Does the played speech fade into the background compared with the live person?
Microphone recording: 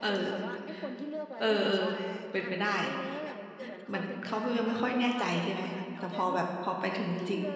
Yes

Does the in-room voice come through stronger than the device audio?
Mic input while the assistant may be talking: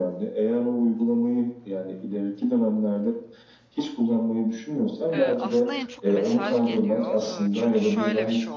No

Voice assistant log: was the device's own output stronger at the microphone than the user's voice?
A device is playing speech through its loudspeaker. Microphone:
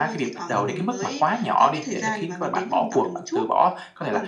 Yes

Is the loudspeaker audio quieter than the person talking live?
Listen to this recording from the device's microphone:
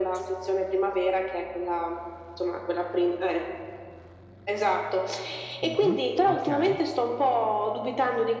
No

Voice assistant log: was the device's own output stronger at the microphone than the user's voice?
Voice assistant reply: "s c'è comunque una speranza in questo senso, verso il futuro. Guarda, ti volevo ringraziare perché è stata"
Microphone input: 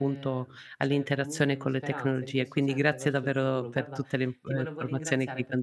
No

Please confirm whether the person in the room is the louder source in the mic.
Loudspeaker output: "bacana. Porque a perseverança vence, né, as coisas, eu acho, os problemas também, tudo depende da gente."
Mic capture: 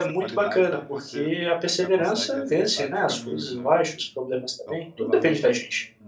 No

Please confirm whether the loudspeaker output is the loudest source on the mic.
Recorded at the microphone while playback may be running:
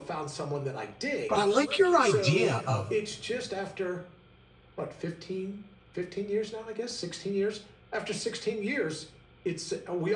No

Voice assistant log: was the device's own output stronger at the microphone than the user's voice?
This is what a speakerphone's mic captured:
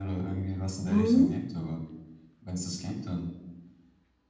No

